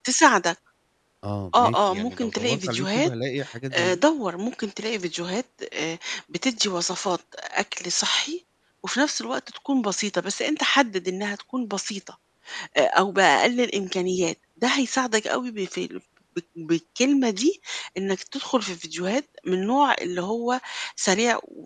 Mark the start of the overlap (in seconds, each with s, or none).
1.5 s